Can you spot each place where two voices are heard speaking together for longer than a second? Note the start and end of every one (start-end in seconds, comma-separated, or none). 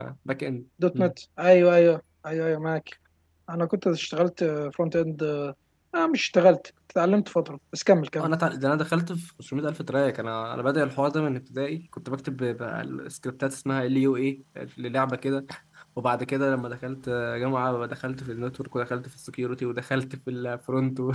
none